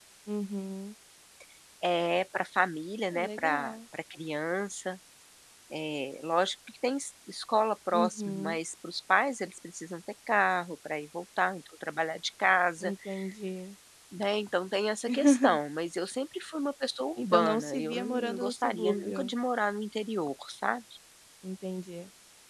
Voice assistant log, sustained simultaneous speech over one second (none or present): present